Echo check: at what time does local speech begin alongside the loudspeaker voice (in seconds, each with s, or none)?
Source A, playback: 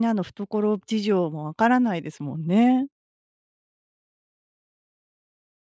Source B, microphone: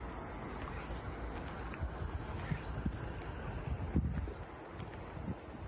none